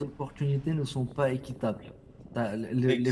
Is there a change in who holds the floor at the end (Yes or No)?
No